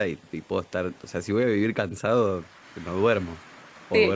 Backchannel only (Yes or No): No